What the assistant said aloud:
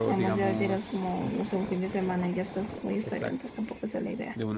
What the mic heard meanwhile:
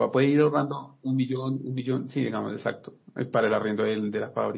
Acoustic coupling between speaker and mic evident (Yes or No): No